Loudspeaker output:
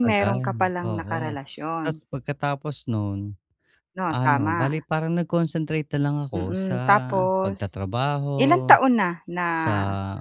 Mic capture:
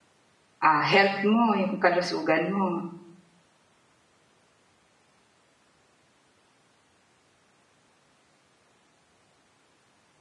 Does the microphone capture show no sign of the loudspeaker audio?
Yes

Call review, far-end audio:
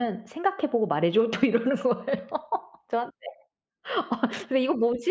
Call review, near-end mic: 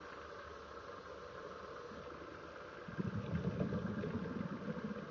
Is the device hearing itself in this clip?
No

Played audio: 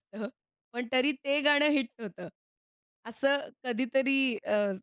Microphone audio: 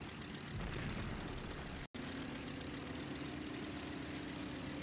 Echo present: No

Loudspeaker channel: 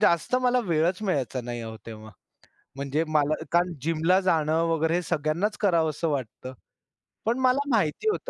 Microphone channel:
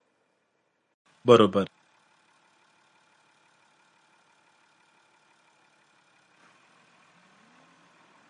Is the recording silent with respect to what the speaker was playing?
Yes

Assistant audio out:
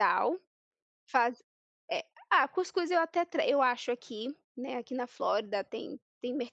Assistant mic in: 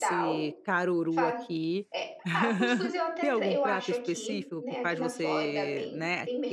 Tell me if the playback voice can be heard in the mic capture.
Yes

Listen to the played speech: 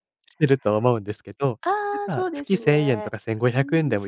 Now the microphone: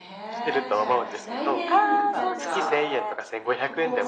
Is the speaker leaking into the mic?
Yes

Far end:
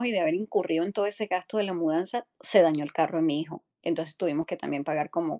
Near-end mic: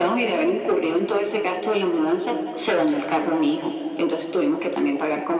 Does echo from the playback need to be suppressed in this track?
Yes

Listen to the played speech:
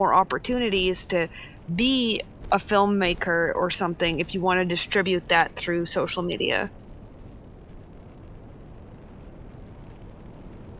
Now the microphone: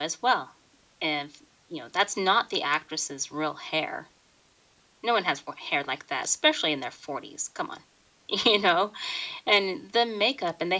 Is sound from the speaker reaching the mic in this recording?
No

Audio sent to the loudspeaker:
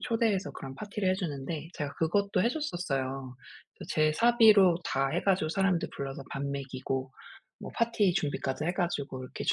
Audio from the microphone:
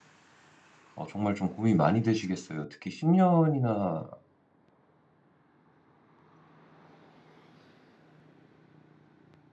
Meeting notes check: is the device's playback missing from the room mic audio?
Yes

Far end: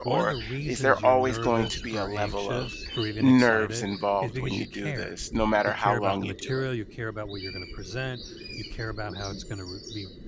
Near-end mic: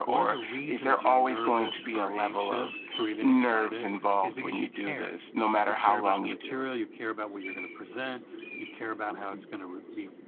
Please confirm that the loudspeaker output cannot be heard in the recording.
No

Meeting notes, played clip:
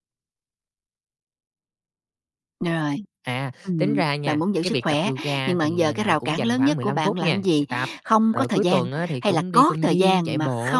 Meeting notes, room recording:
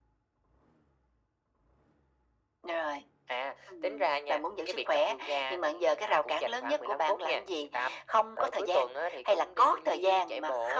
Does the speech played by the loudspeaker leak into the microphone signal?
Yes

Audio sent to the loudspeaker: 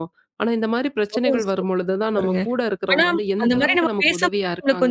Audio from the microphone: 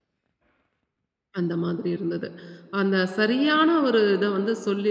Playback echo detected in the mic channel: No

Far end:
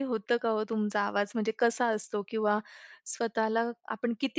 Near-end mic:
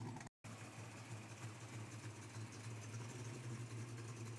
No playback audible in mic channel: Yes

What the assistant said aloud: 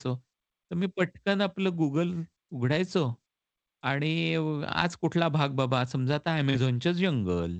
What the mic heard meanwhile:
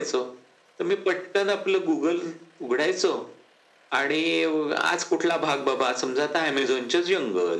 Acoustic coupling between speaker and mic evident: Yes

